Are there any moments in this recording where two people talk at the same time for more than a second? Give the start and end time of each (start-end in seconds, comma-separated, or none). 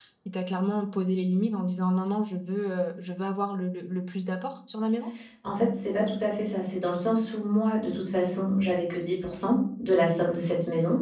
none